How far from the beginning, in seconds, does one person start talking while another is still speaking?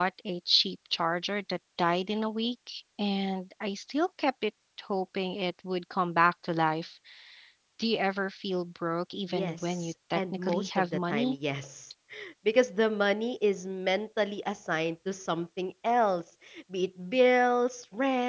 9 s

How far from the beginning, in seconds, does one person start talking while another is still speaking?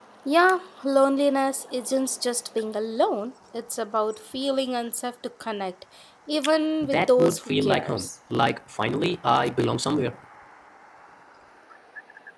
7 s

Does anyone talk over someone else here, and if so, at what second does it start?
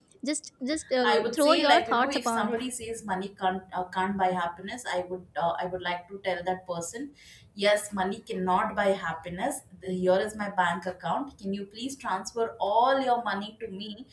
1 s

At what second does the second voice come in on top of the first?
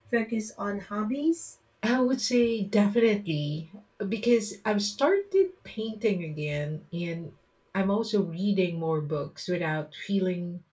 none

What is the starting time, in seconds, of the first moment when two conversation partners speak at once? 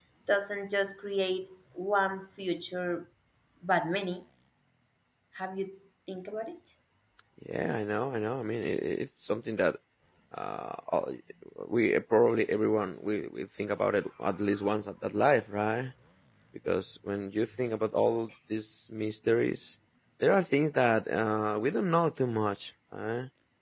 none

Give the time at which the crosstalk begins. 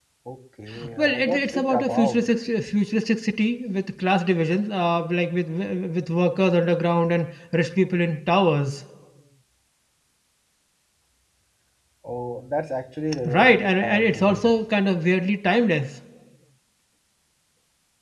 1 s

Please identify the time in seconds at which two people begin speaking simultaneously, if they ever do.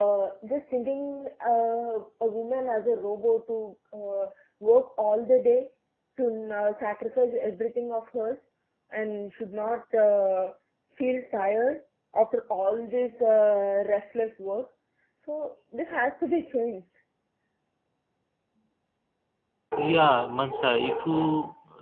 none

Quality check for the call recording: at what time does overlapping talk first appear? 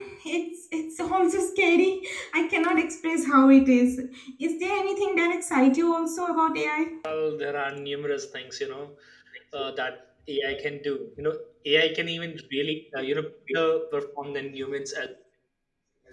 none

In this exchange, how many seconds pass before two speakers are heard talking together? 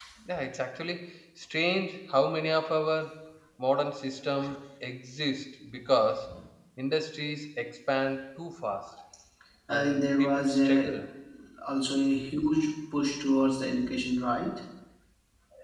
10 s

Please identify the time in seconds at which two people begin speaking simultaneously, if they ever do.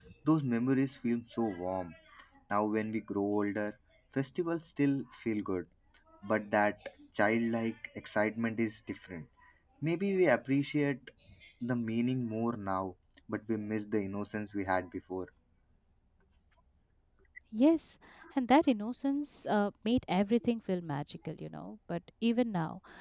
none

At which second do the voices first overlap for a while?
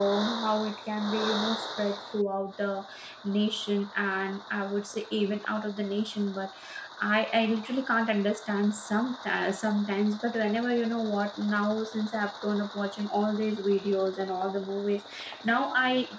none

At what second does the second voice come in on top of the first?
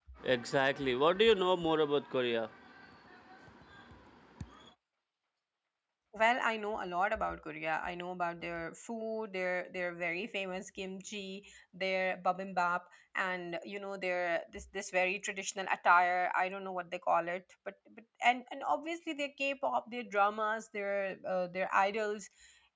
none

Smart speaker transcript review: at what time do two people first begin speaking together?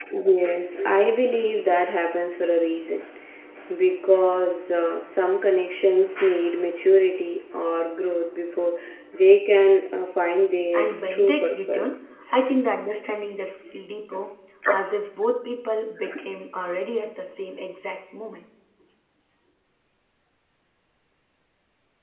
11 s

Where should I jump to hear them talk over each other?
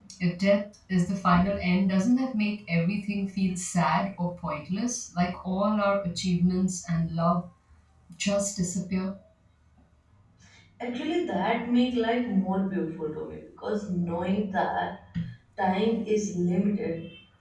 none

